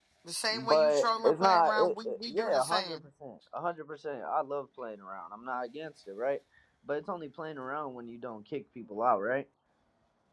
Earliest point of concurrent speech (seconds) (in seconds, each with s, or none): 0.5 s